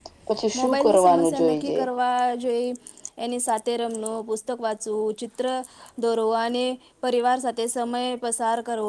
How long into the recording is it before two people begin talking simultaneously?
0.6 s

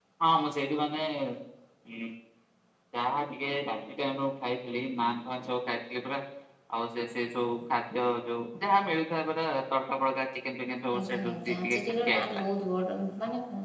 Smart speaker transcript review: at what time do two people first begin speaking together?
10.9 s

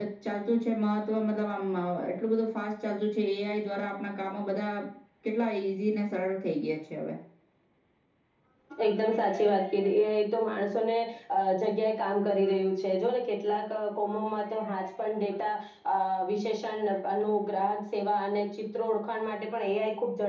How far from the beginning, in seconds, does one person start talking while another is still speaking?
none

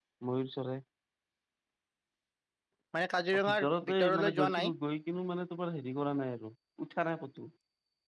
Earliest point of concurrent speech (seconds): 3.4 s

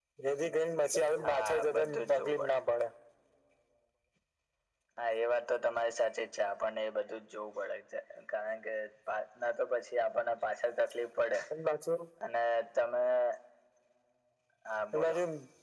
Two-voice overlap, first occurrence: 1.2 s

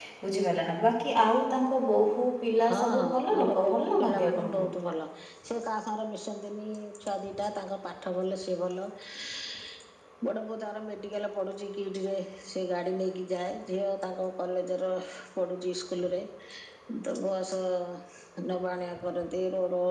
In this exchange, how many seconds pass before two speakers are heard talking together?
2.6 s

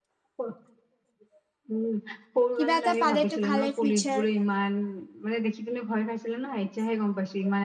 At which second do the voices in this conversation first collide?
2.6 s

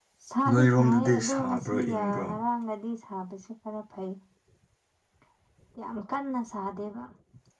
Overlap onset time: 0.5 s

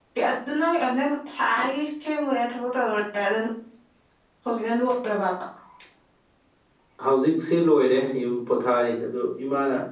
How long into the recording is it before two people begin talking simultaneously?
none

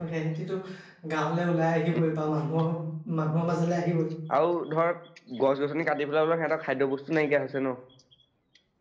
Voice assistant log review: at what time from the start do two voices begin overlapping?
none

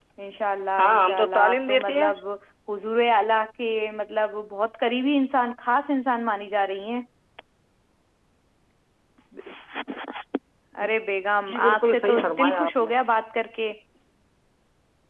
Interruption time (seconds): 0.8 s

